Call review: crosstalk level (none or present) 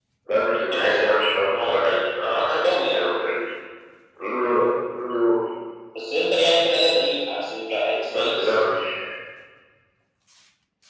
present